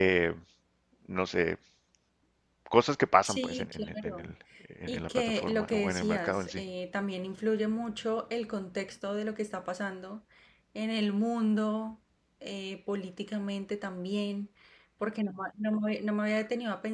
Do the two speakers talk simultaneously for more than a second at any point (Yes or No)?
Yes